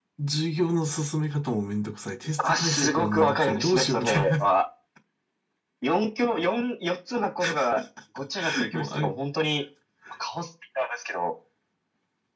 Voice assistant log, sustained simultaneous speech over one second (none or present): present